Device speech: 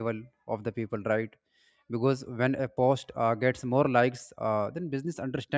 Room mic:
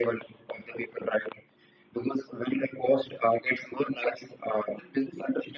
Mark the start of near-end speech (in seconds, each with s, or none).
none